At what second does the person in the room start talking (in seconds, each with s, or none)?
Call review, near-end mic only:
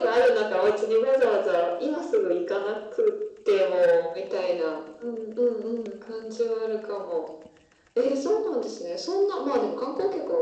none